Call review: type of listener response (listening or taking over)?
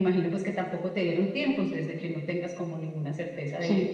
taking over